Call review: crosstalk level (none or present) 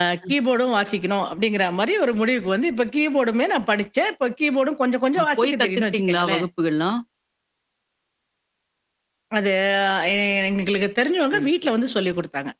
present